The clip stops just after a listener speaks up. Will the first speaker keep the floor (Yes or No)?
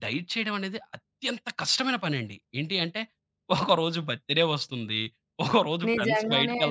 No